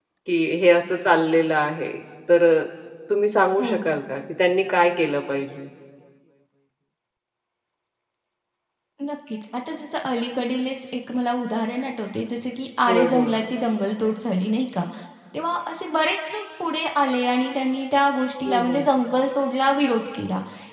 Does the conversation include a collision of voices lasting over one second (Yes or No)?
No